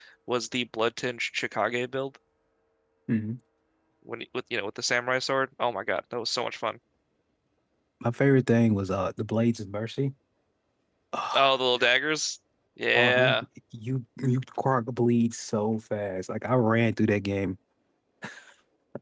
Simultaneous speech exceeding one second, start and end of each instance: none

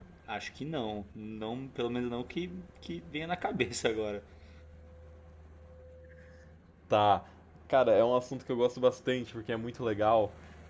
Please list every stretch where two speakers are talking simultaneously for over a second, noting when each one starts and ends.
none

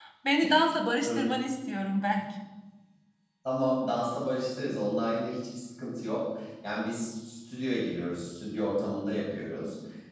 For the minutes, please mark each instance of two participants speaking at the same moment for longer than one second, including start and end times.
none

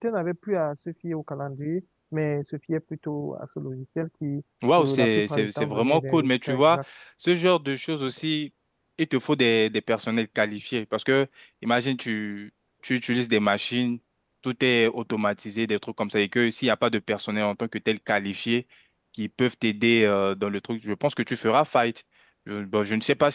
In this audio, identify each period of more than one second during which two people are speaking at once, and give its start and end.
4.8-6.8

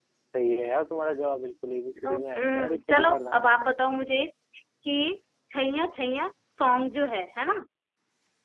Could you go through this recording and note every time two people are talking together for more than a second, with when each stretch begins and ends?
2.0-3.4

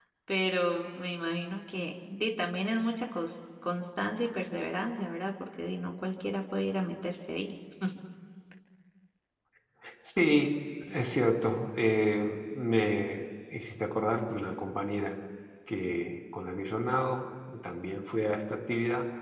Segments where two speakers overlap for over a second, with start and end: none

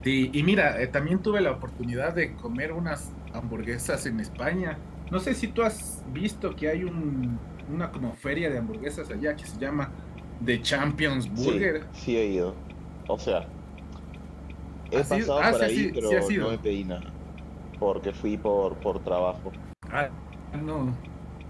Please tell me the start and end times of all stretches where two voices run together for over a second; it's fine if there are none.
14.9-16.6

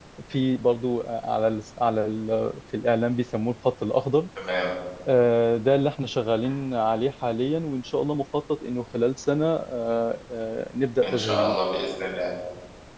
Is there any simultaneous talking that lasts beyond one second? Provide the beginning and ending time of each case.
none

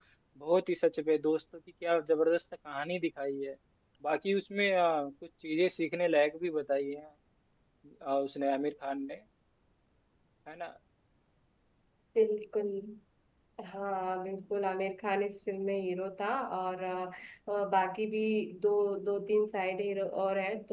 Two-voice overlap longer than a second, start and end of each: none

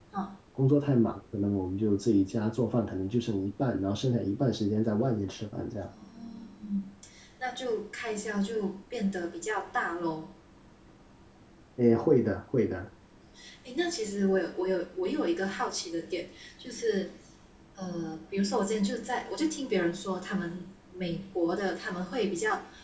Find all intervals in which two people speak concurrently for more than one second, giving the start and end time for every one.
none

